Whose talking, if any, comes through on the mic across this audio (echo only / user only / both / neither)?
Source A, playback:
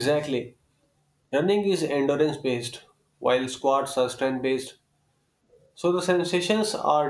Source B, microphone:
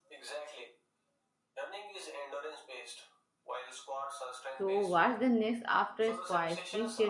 both